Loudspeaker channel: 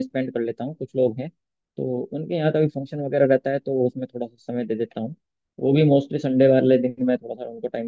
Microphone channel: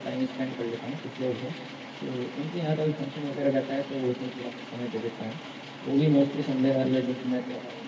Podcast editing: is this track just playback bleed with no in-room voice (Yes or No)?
Yes